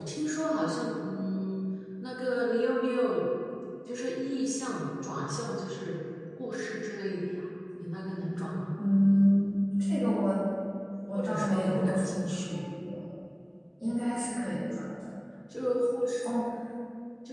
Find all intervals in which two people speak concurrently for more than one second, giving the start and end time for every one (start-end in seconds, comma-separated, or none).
11.1-12.6